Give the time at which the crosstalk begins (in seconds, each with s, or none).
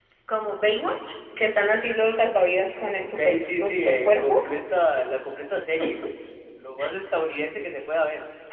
2.9 s